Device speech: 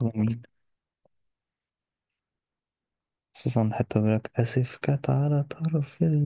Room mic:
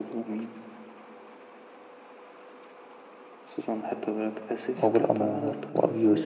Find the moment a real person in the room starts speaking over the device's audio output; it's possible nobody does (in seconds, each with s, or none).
4.7 s